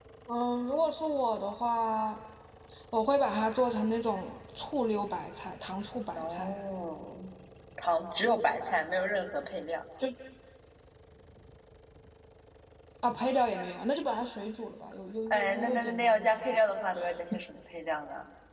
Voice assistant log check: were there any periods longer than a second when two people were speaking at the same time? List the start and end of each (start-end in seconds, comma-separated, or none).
15.3-16.6